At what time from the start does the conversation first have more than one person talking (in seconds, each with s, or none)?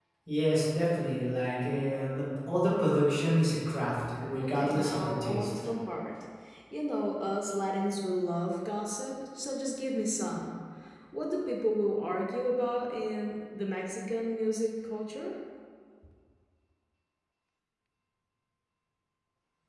4.4 s